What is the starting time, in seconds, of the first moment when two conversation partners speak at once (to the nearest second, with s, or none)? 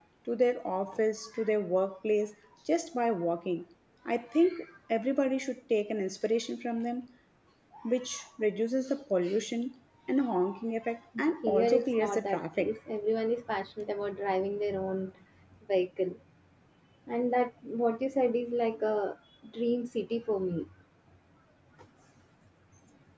11 s